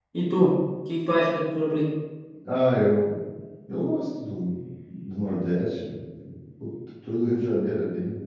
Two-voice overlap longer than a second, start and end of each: none

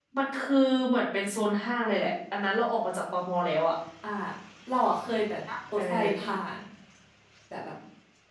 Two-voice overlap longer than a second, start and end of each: none

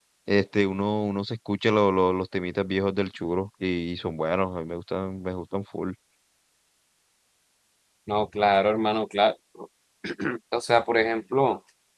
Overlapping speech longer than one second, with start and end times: none

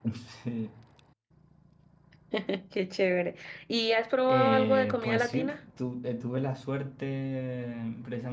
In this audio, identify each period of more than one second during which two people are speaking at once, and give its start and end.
4.3-5.5

